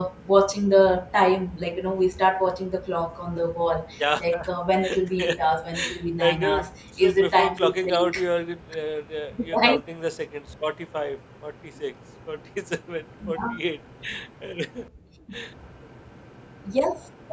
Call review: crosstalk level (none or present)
present